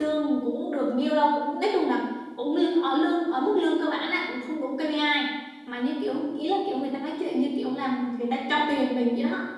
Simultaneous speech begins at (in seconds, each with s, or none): none